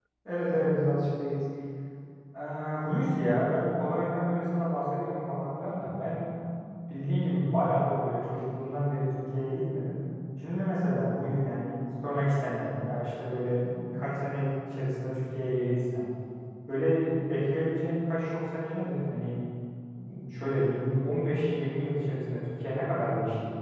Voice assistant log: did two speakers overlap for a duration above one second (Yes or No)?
No